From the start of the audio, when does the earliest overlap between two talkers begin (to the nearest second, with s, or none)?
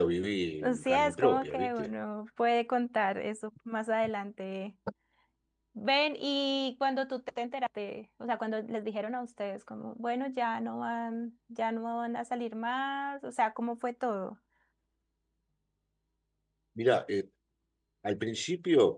1 s